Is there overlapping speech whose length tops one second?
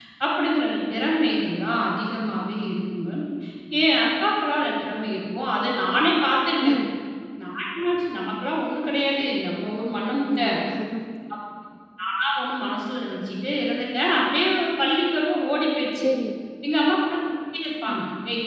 No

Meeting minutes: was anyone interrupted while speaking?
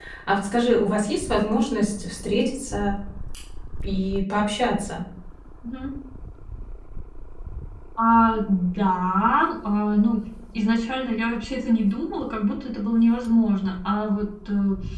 No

